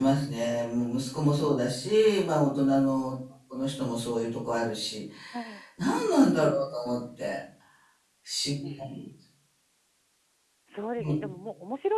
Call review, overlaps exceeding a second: none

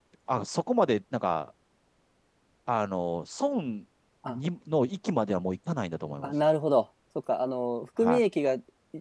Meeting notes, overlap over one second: none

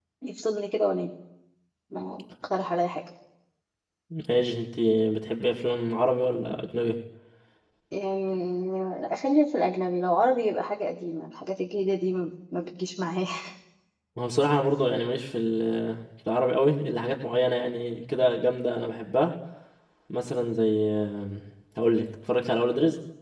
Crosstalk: none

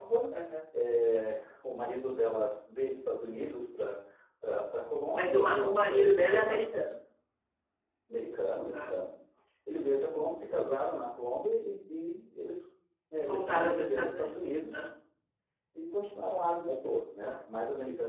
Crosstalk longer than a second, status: present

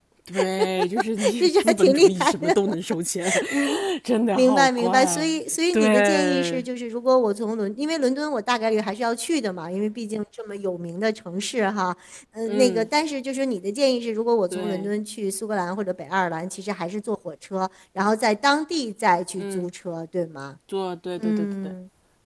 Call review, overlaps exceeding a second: present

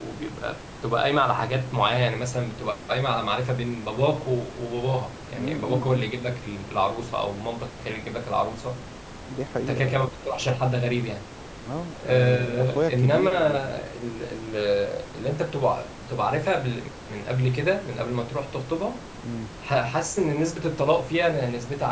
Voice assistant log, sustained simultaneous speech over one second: present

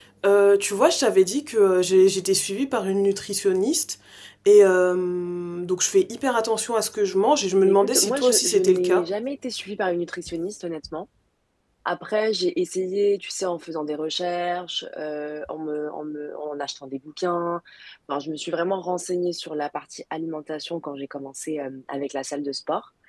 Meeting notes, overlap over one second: present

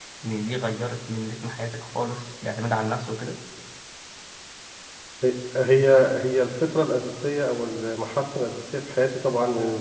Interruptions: none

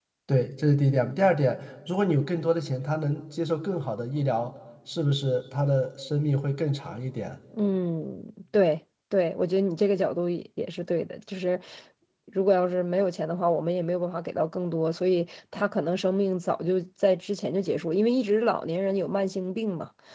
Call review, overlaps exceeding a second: none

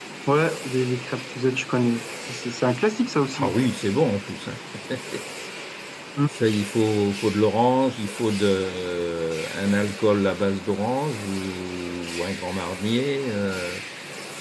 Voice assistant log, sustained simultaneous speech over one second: none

